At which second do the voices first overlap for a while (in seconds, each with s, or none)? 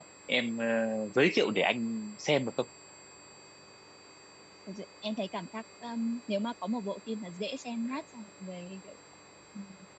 none